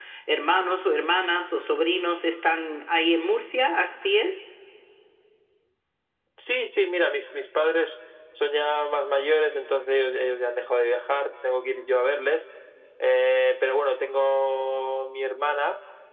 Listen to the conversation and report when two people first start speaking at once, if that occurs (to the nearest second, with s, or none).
none